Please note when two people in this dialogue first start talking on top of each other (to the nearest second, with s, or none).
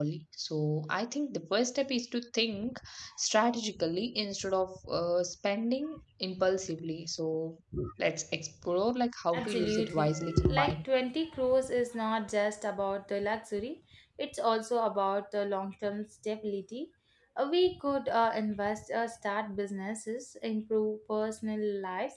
9 s